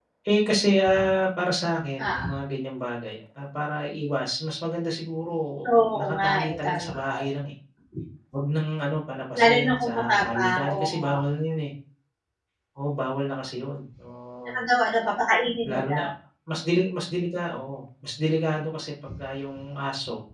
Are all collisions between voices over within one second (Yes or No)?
No